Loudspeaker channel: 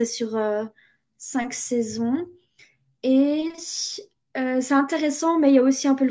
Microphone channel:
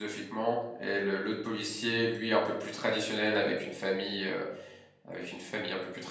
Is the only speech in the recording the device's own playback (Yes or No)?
No